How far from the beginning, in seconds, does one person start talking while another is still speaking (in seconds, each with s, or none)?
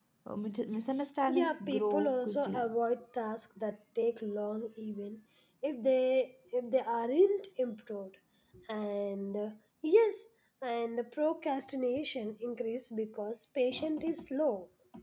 1.3 s